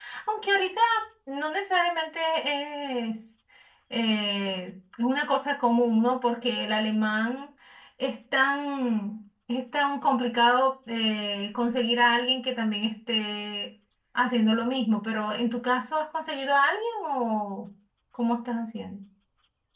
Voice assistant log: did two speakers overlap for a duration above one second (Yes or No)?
No